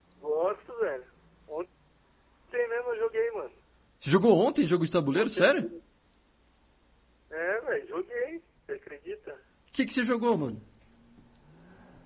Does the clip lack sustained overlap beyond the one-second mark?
Yes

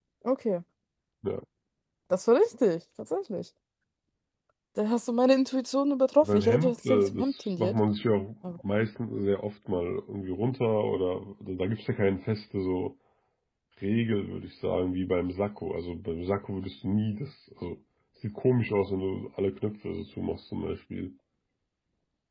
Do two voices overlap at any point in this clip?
Yes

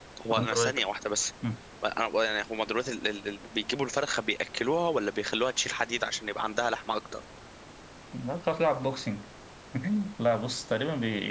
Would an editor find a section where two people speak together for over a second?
No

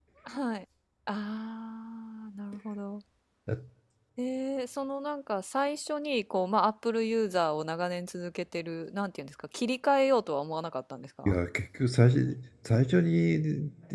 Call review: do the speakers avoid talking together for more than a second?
Yes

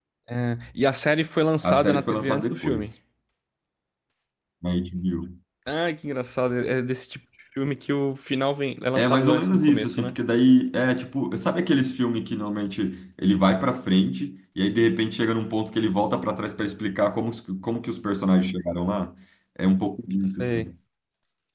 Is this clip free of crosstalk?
No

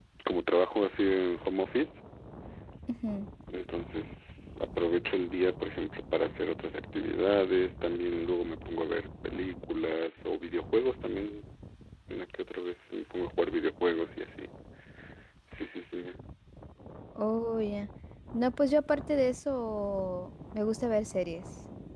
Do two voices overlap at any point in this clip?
No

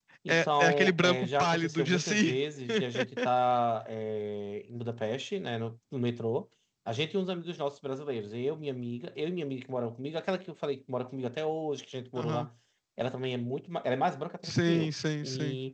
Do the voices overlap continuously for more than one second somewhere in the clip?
Yes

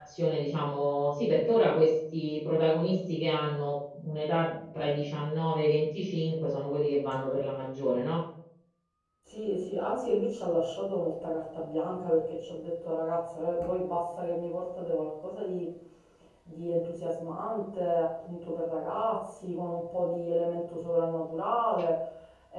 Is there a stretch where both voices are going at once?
No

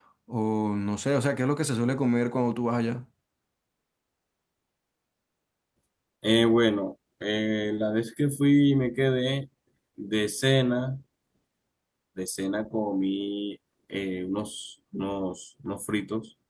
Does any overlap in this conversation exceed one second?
No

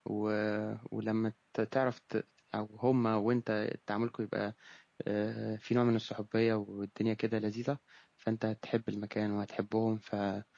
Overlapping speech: No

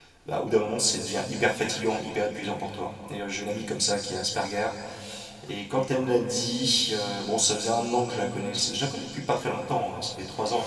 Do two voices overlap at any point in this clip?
No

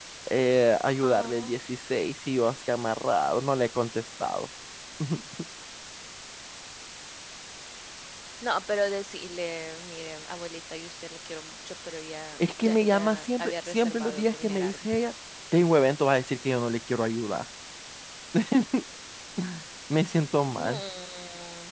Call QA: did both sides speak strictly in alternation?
No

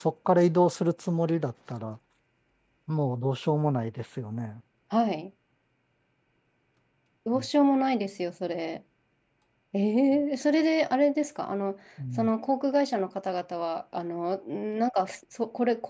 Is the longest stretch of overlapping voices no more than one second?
Yes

